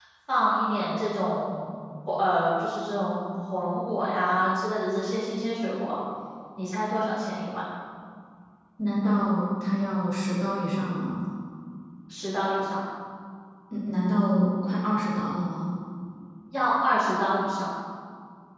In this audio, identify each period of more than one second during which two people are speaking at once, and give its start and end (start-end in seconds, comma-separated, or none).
none